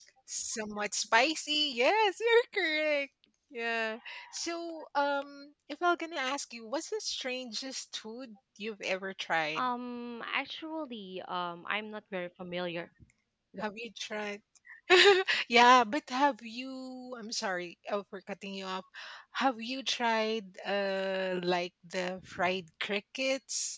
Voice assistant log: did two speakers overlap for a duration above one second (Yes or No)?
No